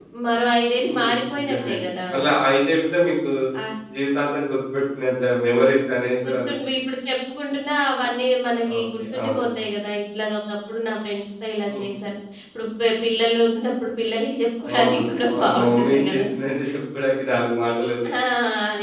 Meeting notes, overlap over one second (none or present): present